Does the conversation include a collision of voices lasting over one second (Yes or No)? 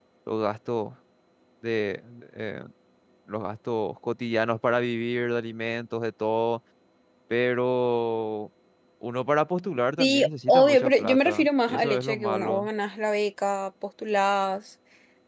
Yes